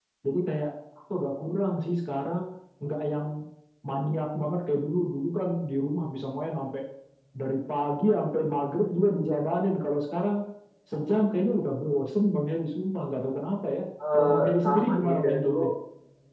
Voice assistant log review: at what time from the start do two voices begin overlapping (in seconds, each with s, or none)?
14.0 s